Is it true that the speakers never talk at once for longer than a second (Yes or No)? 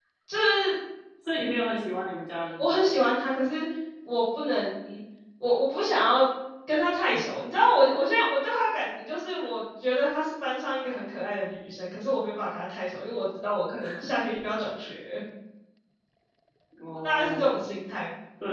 Yes